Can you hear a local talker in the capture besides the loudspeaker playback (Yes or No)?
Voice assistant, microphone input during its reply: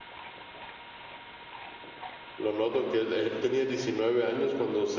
Yes